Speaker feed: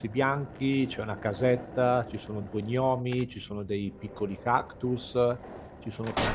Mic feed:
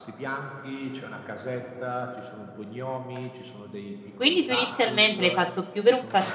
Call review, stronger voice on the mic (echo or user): user